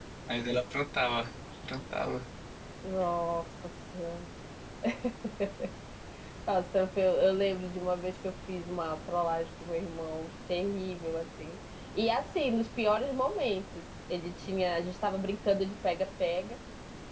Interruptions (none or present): none